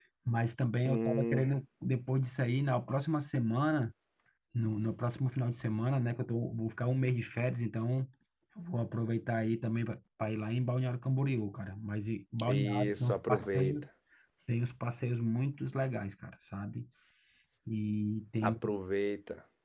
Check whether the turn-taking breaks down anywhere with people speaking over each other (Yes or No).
Yes